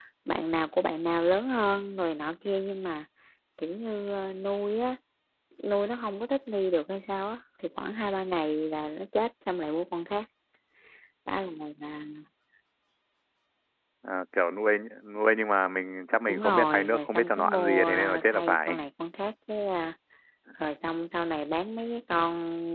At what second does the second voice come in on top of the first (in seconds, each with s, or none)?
16.3 s